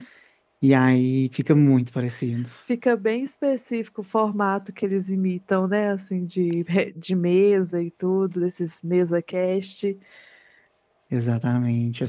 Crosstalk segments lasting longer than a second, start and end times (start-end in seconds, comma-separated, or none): none